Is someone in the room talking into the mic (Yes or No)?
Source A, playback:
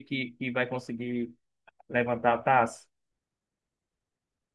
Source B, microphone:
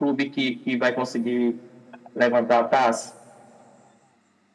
No